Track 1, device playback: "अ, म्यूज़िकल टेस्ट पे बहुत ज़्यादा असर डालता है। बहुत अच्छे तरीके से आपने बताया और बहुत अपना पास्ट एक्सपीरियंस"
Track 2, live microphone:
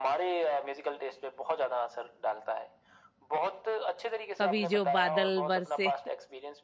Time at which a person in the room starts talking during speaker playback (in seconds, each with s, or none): 4.4 s